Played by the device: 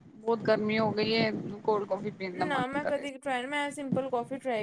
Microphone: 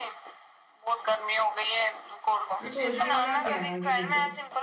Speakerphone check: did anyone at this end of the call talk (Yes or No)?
Yes